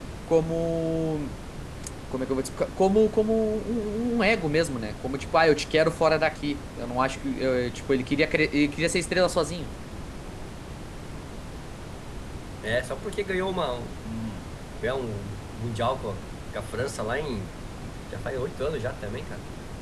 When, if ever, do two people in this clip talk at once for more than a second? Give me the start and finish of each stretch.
none

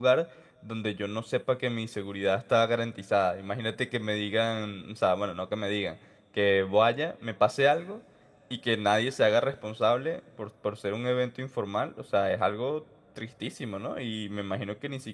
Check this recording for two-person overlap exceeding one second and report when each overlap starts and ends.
none

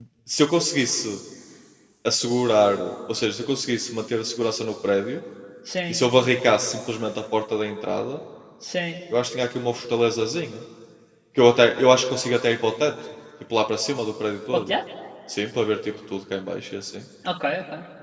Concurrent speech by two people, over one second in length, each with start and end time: none

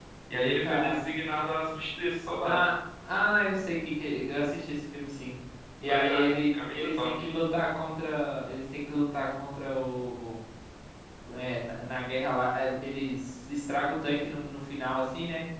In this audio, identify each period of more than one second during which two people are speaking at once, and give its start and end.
5.9-7.2

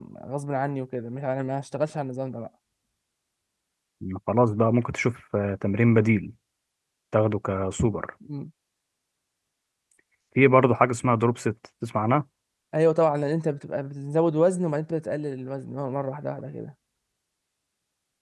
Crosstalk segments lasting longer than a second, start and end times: none

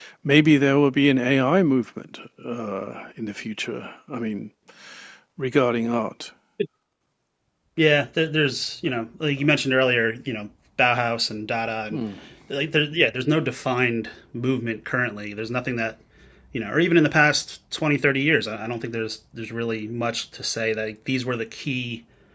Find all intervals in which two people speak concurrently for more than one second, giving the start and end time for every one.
none

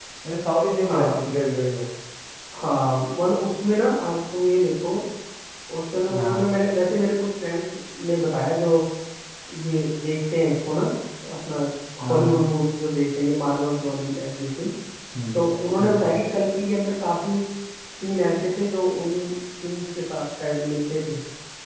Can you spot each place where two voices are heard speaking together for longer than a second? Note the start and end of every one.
none

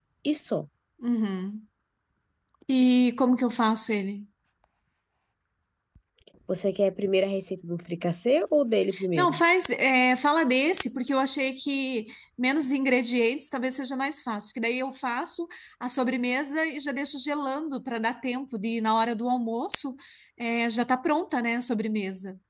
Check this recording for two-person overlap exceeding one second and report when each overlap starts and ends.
none

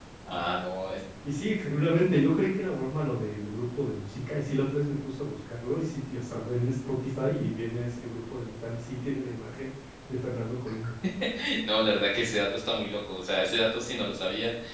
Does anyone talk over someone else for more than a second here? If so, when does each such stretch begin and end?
none

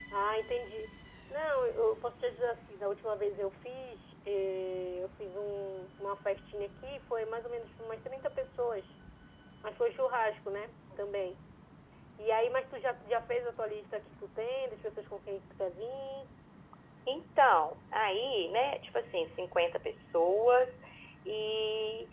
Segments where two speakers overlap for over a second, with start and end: none

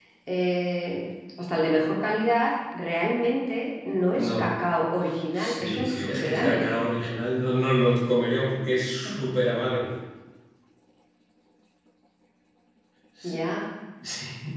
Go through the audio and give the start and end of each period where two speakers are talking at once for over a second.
5.4-6.7

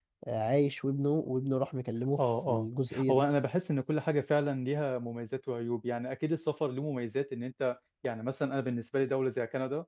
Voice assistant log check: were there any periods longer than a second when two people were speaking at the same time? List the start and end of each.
none

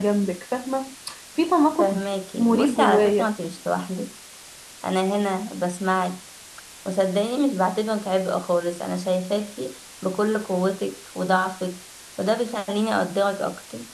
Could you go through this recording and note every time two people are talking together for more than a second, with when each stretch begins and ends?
1.8-3.3

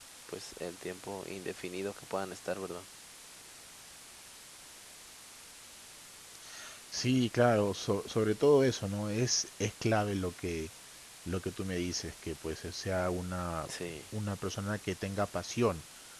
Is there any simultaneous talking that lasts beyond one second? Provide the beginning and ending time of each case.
none

